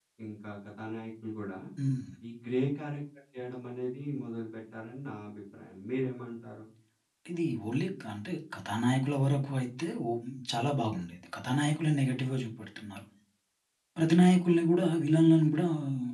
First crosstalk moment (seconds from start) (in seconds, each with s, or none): none